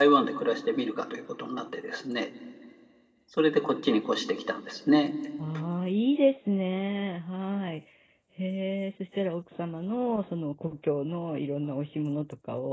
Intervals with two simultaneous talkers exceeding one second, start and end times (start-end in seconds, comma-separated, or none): none